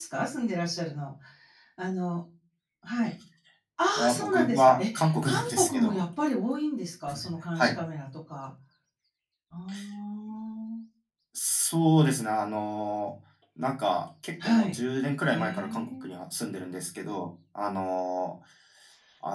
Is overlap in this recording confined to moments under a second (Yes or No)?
No